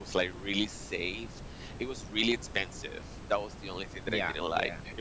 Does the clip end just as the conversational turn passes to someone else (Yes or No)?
No